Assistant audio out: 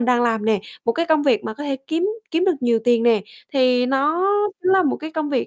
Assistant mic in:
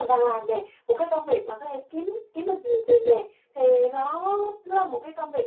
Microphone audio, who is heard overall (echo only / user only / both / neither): echo only